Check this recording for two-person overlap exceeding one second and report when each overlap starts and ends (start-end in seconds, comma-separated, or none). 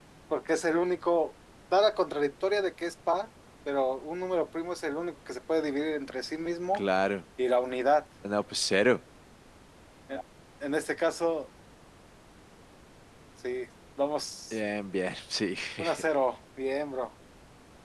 none